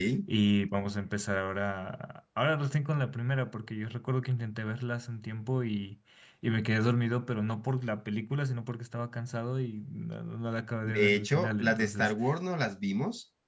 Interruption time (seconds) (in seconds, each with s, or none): 10.8 s